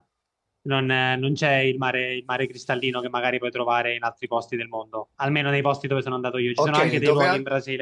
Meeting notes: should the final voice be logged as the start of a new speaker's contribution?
Yes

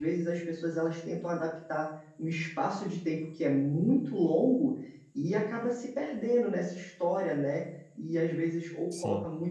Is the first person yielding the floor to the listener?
No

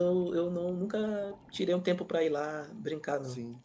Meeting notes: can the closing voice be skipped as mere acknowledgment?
No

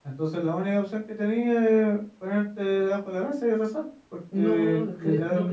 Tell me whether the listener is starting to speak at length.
Yes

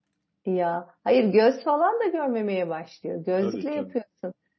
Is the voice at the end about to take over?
No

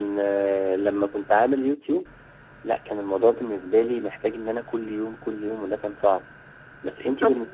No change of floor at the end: No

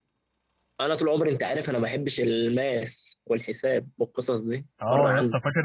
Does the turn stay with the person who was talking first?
No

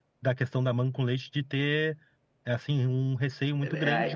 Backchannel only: No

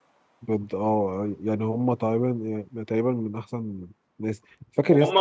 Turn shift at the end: Yes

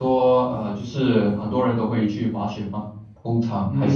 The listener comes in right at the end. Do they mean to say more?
Yes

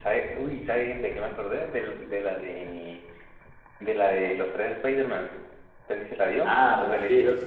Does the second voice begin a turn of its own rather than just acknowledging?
Yes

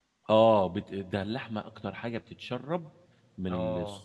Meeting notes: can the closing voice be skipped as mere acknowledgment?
Yes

